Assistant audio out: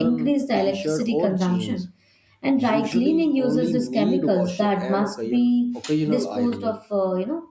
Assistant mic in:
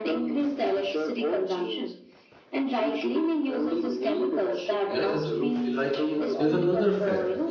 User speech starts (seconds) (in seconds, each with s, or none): 4.9 s